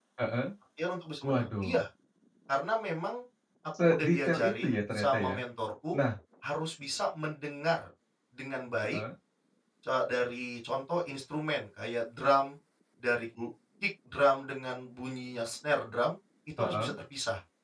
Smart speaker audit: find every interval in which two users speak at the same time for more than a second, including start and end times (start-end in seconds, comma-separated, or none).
3.8-5.4